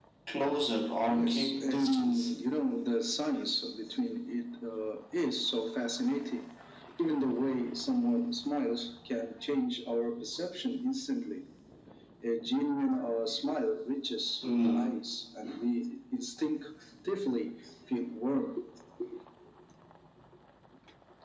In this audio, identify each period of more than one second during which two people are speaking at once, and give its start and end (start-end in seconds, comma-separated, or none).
1.1-2.3